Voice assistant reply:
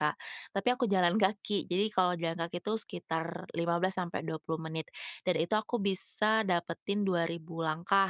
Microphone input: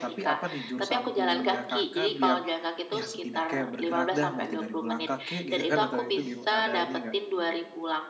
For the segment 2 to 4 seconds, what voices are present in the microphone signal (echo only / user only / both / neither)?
both